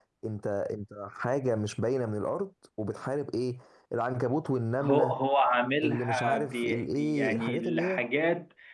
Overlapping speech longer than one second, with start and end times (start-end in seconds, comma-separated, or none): 5.8-8.0